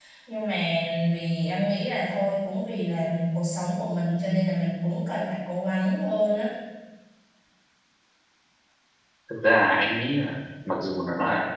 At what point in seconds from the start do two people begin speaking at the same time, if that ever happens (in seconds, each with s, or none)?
none